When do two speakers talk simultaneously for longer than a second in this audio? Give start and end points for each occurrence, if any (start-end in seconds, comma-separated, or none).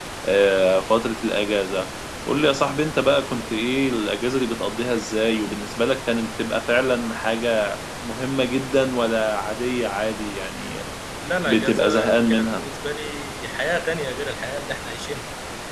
11.4-12.7